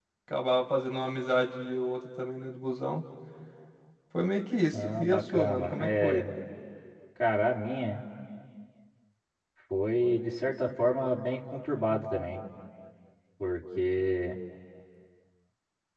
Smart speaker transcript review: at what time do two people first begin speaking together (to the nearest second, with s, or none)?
5 s